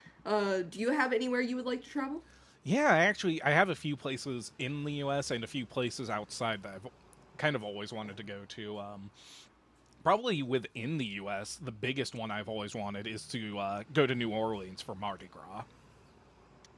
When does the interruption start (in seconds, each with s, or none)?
none